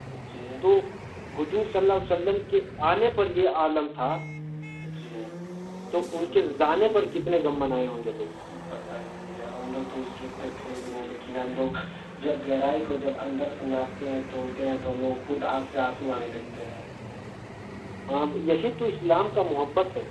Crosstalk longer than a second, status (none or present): none